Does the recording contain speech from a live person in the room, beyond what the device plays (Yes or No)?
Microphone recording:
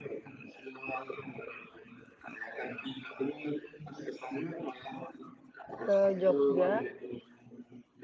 Yes